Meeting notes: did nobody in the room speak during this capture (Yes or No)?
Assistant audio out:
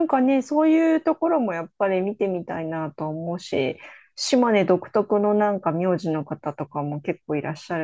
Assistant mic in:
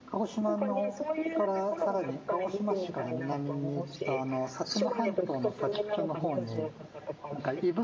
No